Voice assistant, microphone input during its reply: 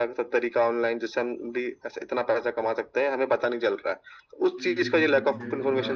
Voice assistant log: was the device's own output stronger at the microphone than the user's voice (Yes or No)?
Yes